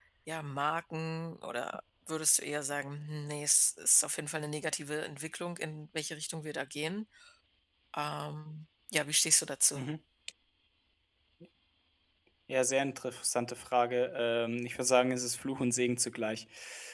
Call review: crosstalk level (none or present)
none